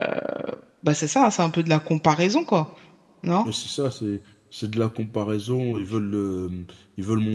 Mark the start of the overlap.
none

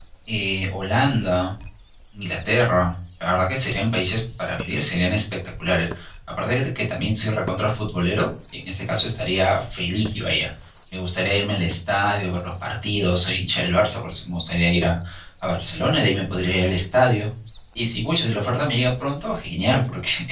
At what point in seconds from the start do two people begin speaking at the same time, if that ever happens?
none

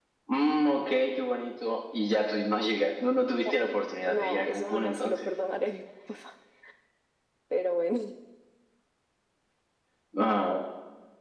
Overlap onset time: 4.1 s

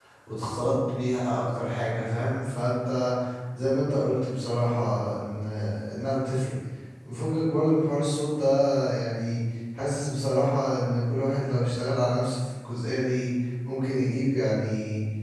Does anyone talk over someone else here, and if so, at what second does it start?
none

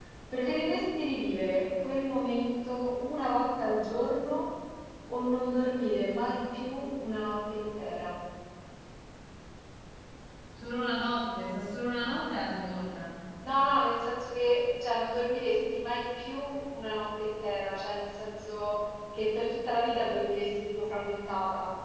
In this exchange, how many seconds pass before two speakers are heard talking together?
none

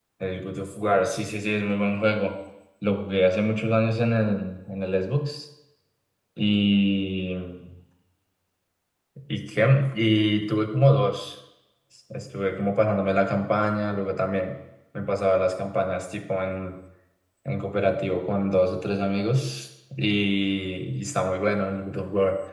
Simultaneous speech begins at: none

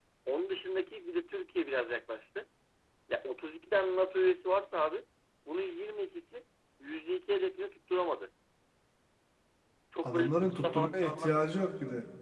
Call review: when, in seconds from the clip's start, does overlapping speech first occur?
10.0 s

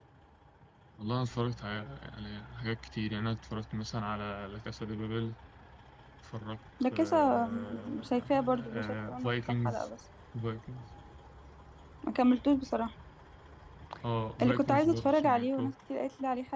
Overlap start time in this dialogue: 6.9 s

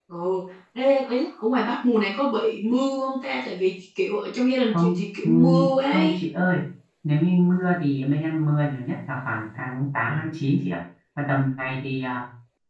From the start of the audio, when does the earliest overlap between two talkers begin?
4.7 s

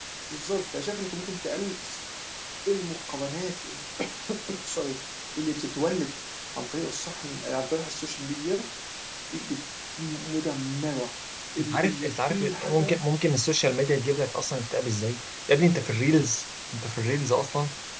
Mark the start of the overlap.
11.6 s

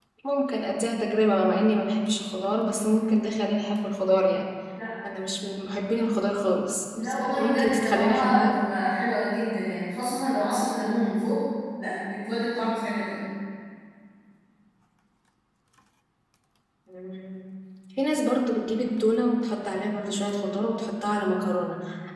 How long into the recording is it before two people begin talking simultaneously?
6.9 s

